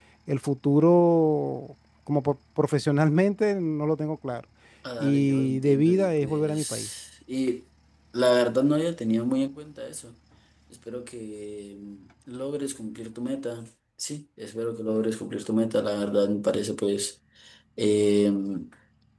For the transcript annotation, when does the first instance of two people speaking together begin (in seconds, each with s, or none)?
5.0 s